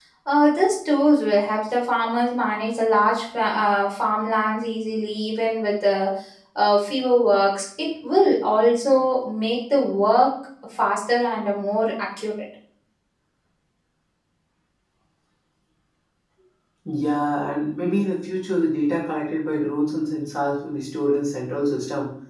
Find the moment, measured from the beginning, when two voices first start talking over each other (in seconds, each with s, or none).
none